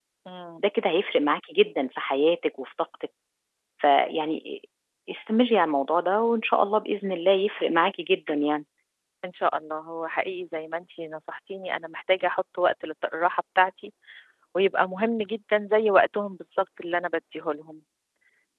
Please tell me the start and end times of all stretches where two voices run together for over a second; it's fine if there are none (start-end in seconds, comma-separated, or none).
none